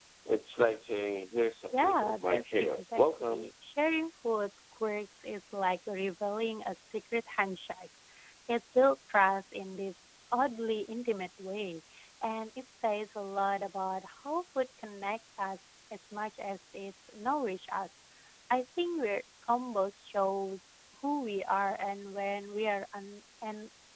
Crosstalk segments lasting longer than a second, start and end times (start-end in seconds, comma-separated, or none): 1.7-3.5